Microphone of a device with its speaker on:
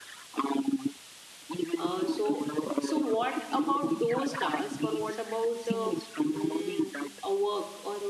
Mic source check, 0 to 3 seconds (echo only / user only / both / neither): both